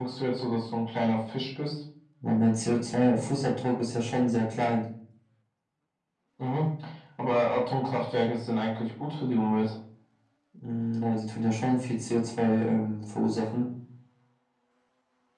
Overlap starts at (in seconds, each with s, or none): none